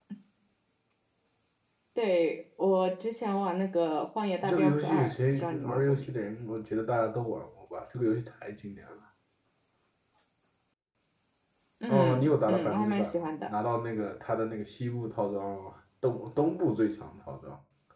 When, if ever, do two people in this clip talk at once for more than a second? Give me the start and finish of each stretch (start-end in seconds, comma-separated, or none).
4.5-6.1, 11.9-13.5